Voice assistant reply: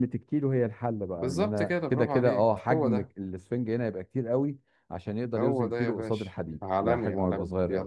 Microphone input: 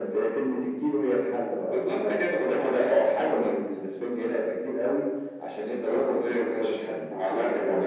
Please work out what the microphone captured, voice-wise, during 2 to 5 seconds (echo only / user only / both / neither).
echo only